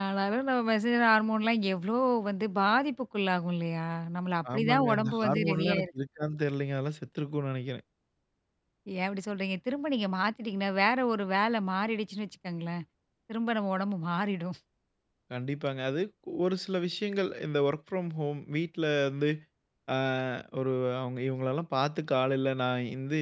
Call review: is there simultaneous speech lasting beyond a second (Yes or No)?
Yes